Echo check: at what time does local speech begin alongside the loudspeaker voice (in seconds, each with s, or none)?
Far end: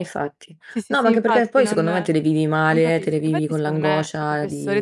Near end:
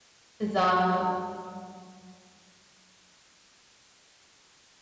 0.4 s